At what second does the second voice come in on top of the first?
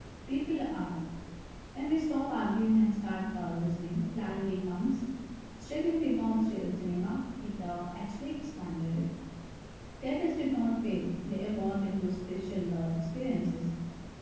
none

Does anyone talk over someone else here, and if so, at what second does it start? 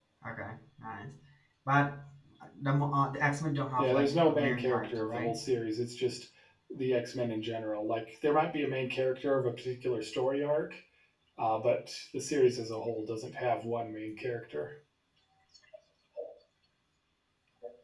3.8 s

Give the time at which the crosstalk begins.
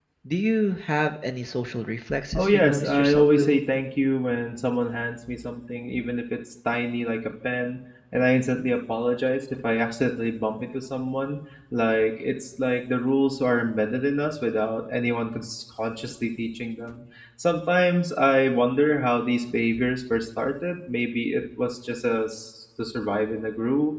2.4 s

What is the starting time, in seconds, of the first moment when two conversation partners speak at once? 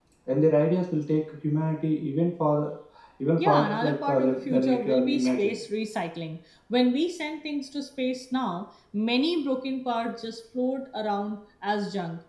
3.4 s

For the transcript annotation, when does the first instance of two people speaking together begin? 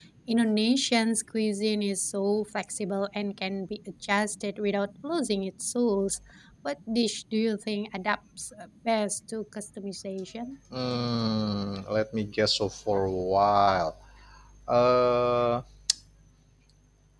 none

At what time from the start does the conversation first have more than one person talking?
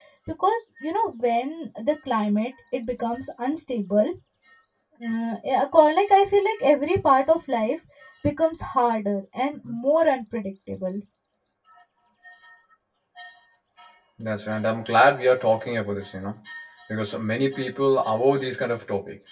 none

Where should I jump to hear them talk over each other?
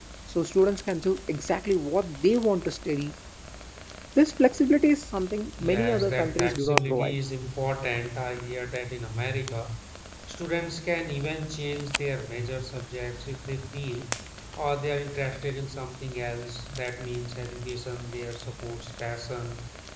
5.6 s

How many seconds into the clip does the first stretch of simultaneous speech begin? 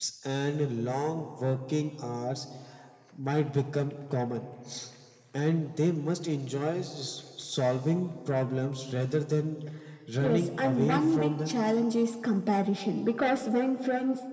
10.2 s

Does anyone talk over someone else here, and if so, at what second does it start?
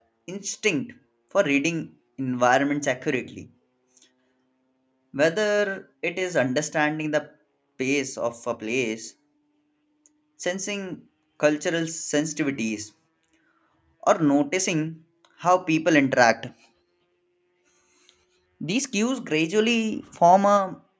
none

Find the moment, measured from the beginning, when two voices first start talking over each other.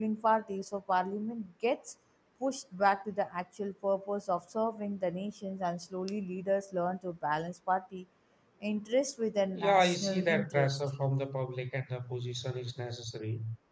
9.6 s

